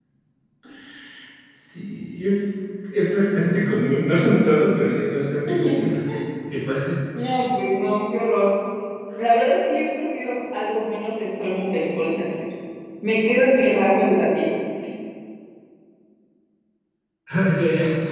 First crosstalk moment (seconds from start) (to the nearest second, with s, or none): none